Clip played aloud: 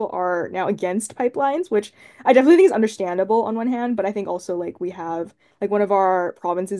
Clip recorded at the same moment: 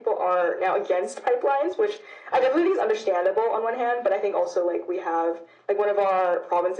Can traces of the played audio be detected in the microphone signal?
Yes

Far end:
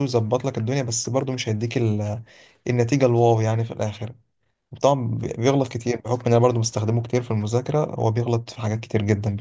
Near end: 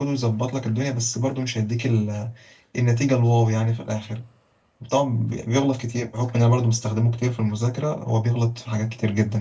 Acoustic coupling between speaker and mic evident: Yes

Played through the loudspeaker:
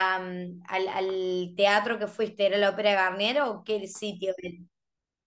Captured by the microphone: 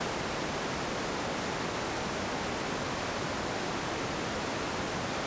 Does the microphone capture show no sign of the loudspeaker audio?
Yes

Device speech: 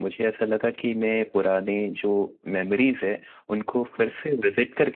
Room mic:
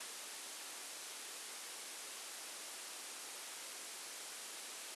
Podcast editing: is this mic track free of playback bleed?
Yes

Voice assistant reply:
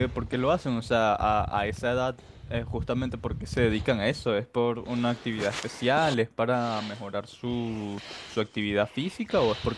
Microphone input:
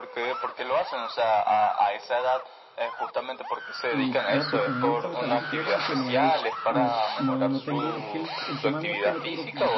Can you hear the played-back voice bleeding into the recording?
Yes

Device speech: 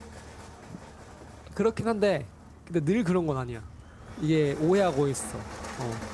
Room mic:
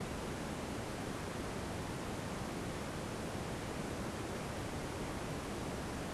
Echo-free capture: Yes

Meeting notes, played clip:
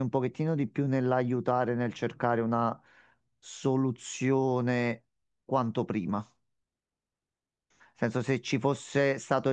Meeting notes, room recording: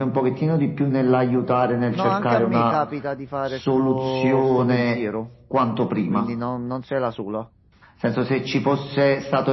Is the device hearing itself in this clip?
Yes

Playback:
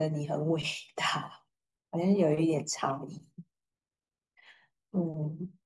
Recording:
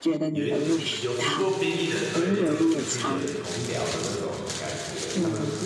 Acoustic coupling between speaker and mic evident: Yes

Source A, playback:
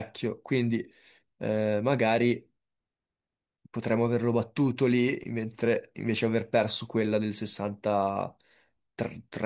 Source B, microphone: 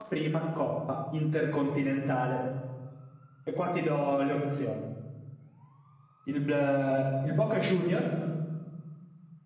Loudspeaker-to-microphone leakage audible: No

